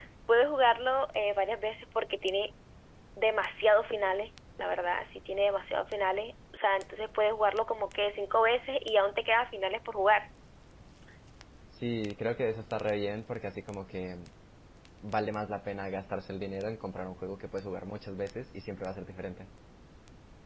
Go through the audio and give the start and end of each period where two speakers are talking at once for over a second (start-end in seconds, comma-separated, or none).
none